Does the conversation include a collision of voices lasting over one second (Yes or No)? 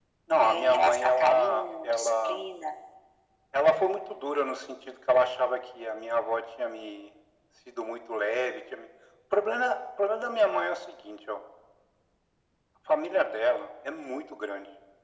Yes